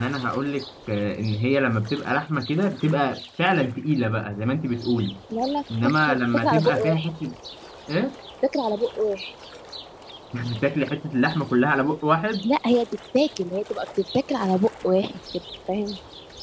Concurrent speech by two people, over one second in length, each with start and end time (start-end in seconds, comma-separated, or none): 5.8-7.1